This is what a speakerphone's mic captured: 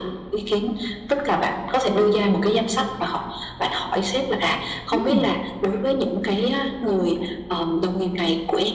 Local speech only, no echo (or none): Ừm!